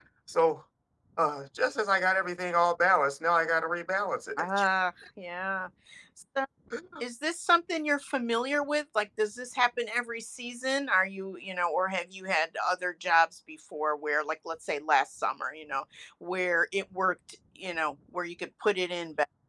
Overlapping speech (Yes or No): No